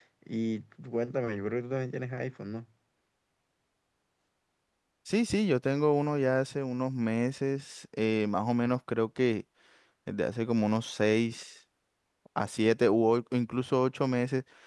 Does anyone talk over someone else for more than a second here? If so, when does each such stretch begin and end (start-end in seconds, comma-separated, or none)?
none